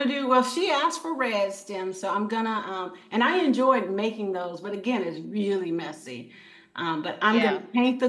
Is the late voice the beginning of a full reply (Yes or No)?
No